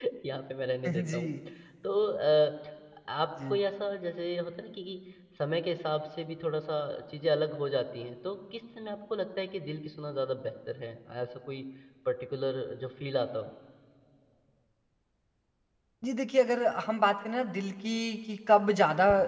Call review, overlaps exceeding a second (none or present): none